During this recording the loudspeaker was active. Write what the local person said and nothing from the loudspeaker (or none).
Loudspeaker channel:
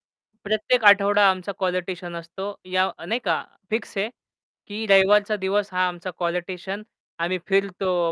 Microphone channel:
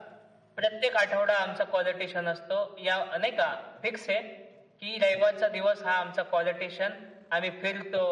none